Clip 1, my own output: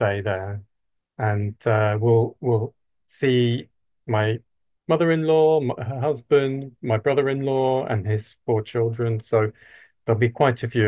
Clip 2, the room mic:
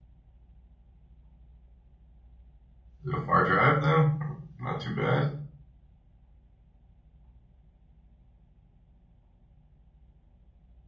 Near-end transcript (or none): Is it a far drive then? Not too bad.